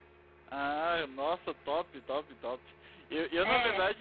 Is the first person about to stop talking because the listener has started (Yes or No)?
No